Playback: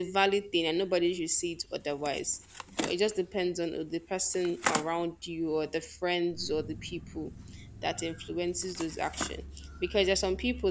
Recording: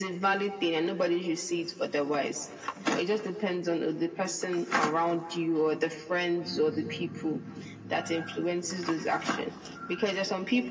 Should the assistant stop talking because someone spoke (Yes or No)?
No